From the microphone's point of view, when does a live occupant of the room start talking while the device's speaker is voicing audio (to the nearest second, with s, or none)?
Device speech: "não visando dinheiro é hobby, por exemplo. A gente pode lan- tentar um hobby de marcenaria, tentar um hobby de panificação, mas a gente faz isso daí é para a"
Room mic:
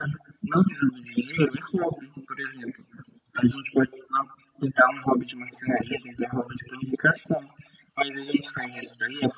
none